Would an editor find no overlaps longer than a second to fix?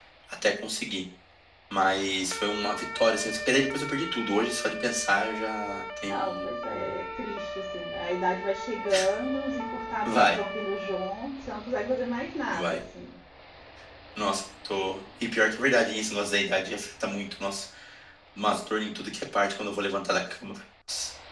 Yes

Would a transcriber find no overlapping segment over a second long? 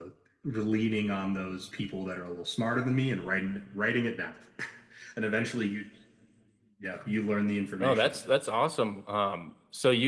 Yes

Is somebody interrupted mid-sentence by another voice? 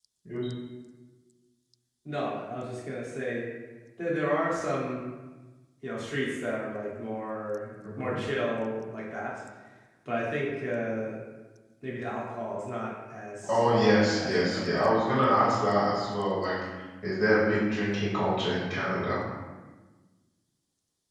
Yes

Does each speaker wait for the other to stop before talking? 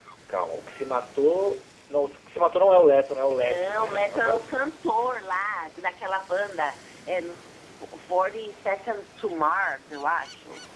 No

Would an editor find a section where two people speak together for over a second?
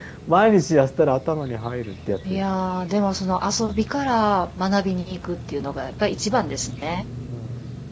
No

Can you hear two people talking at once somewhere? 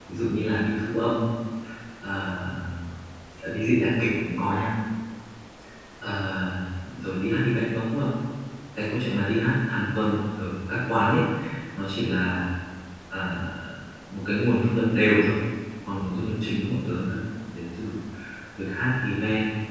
No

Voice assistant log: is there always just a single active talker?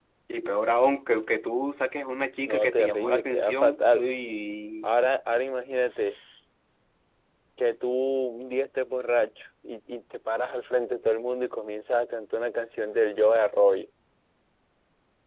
No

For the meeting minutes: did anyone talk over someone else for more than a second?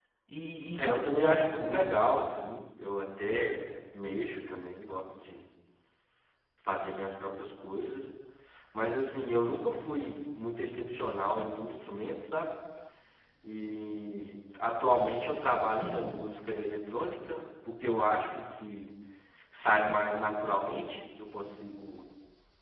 Yes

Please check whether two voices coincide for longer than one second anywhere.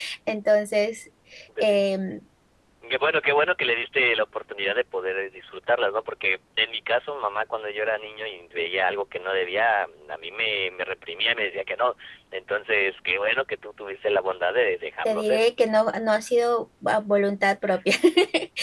No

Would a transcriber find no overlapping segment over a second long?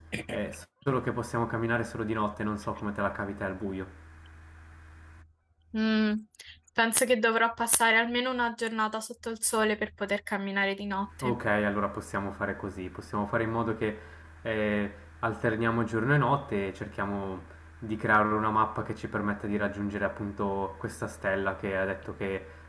Yes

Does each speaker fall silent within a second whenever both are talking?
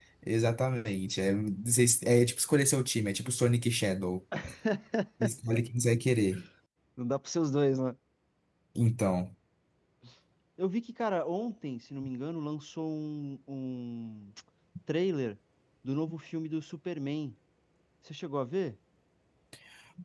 Yes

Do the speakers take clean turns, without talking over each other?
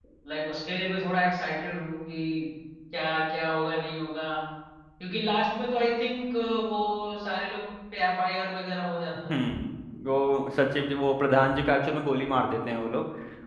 Yes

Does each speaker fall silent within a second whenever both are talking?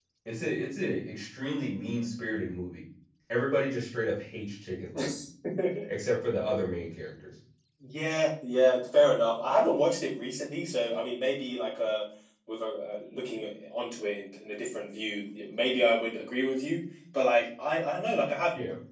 Yes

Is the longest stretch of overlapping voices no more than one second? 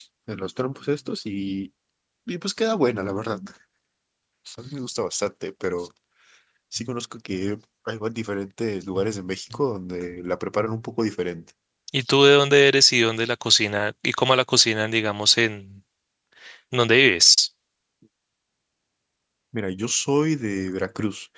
Yes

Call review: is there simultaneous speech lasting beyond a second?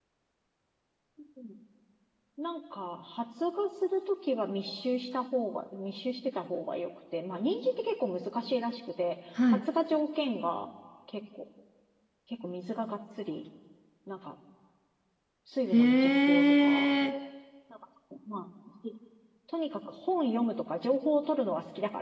Yes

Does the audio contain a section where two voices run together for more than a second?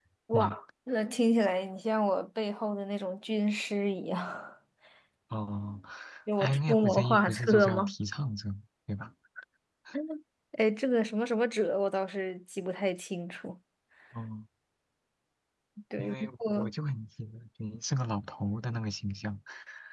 Yes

